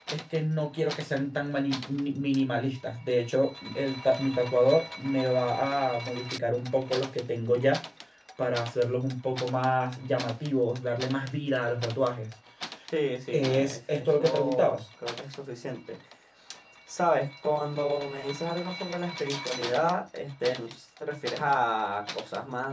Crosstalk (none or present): present